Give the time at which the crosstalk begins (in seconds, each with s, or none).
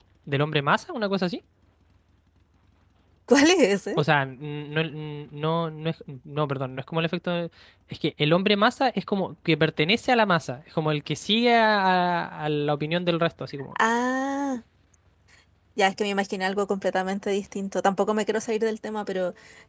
none